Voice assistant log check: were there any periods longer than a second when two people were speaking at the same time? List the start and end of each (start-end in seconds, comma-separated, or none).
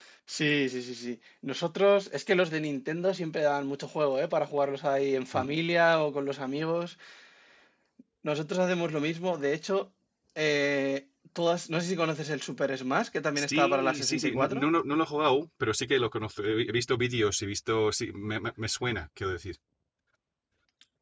13.4-14.7